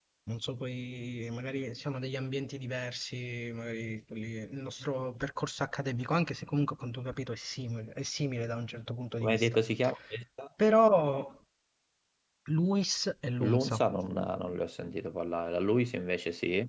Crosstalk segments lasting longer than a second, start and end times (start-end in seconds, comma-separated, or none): none